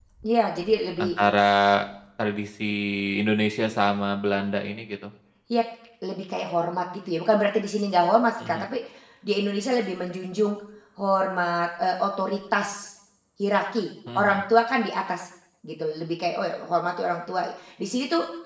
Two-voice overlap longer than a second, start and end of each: none

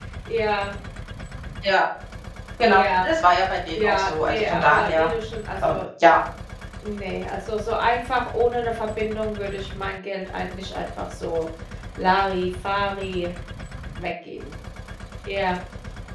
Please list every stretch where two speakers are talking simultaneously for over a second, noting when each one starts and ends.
3.8-5.1

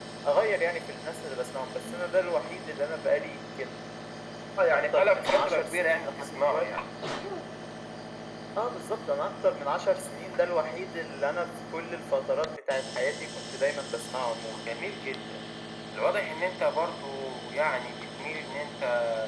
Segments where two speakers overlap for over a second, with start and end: 4.9-6.6

